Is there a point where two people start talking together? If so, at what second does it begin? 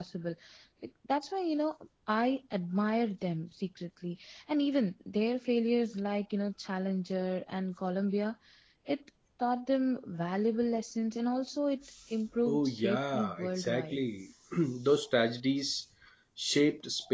12 s

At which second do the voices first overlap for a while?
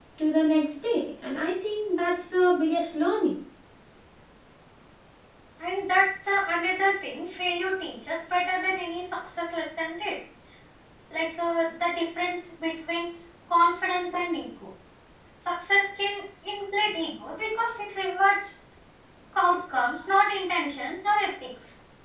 none

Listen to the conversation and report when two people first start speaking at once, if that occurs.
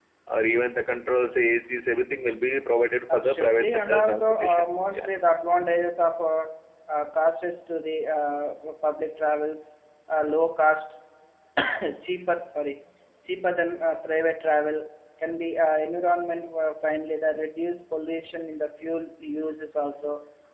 3 s

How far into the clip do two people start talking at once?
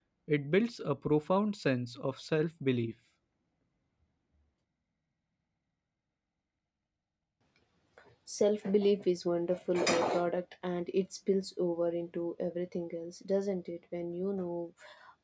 none

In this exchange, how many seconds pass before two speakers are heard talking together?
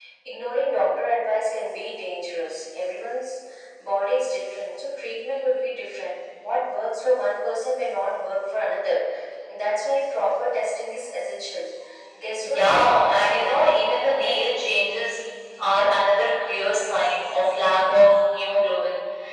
12 s

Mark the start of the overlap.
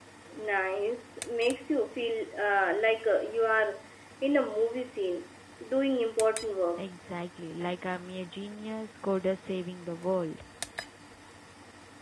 none

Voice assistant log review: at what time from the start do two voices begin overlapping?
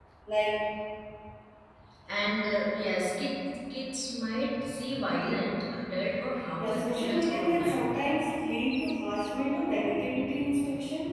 7 s

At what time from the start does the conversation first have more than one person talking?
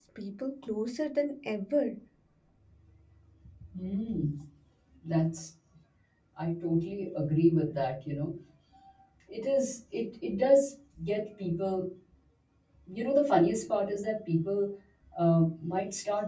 none

